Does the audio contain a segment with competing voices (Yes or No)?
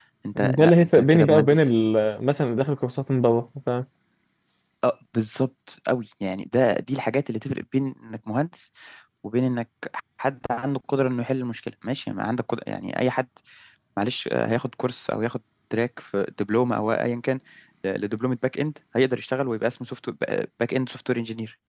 Yes